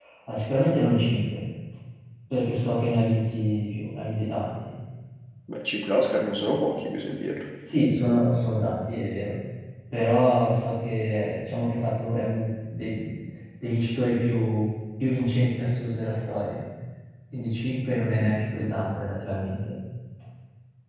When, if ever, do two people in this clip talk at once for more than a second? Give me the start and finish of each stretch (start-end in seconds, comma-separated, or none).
none